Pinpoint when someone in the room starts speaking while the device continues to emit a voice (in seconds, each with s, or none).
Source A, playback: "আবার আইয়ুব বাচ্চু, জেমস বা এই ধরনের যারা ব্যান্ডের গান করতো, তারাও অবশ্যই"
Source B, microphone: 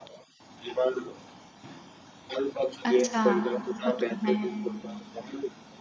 2.9 s